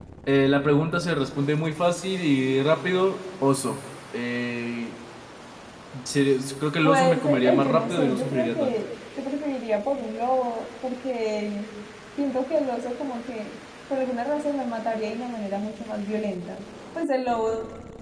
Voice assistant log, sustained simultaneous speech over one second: present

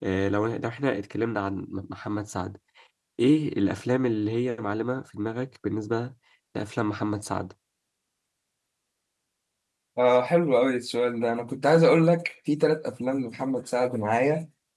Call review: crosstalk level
none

